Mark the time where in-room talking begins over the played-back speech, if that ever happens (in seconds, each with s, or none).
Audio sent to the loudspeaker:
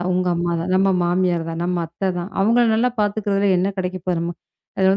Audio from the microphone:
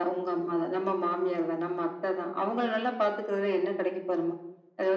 none